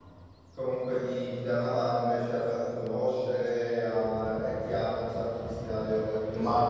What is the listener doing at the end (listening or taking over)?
taking over